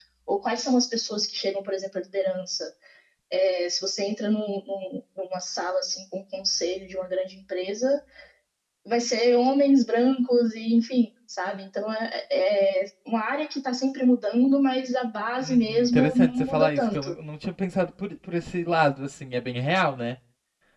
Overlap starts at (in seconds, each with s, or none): 15.4 s